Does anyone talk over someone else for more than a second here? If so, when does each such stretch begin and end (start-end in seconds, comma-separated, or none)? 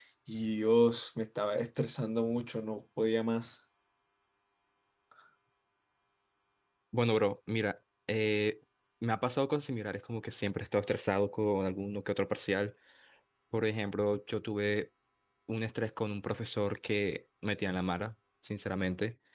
none